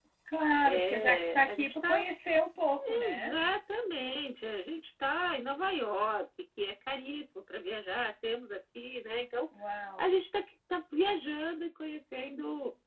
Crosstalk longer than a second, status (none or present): present